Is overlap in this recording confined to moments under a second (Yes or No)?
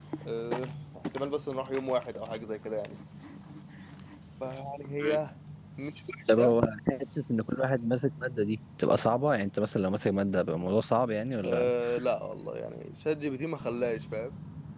Yes